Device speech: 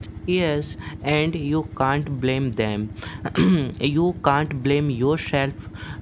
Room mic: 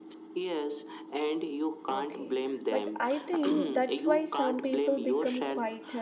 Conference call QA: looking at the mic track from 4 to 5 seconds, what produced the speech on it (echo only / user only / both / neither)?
both